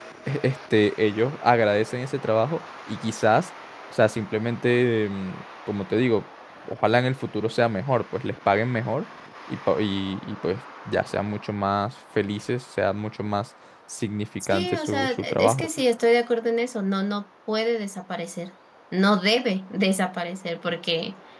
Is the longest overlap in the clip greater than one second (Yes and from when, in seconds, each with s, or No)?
Yes, from 14.4 s